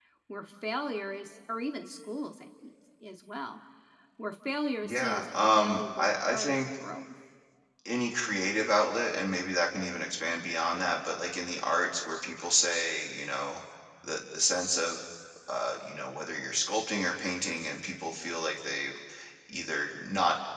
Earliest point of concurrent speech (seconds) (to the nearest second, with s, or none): 5 s